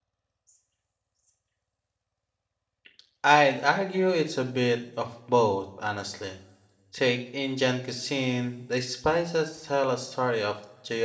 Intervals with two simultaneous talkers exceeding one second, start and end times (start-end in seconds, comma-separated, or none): none